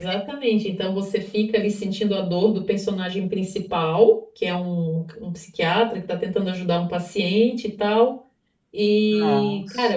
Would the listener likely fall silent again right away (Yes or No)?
Yes